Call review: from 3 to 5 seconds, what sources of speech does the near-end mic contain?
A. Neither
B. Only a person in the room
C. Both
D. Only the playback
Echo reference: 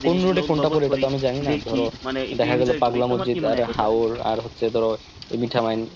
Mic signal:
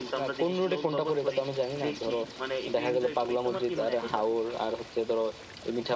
D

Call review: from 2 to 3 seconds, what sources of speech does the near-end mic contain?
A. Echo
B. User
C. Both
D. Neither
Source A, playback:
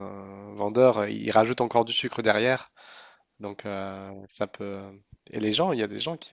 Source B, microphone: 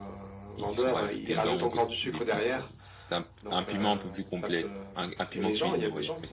C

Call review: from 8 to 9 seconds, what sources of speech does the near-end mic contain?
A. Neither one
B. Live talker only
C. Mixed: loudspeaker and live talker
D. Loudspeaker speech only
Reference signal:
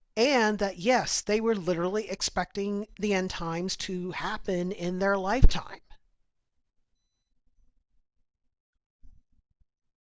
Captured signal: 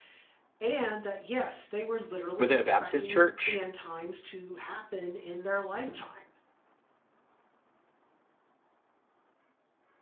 A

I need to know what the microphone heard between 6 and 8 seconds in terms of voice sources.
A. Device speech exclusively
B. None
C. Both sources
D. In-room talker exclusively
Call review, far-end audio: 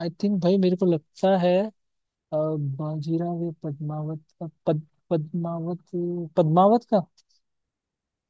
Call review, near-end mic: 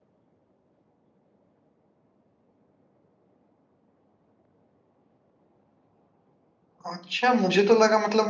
D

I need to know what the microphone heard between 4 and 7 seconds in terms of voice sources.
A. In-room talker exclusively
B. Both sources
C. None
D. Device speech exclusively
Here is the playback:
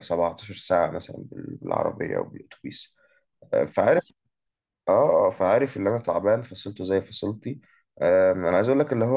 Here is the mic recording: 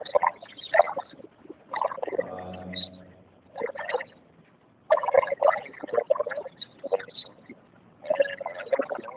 D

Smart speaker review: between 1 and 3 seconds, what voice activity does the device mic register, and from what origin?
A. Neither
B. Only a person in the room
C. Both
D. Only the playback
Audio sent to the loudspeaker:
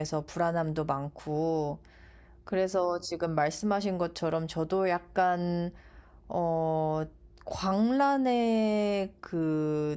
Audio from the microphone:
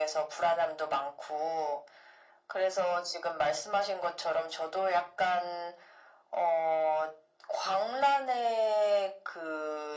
D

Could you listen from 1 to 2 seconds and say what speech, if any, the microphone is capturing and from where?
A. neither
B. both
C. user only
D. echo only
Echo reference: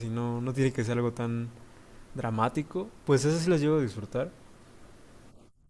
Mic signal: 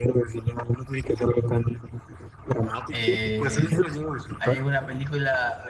D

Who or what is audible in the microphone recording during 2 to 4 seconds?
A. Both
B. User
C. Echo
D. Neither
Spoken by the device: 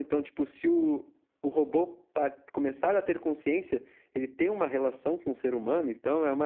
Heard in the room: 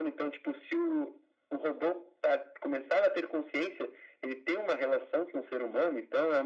C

